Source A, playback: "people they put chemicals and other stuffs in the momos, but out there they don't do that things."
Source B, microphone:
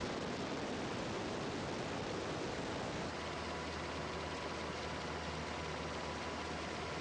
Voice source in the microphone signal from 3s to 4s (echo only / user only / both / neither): neither